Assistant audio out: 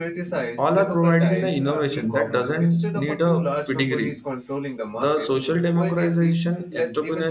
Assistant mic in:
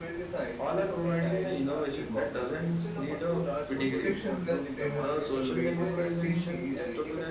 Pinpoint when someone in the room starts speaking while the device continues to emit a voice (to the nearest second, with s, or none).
4 s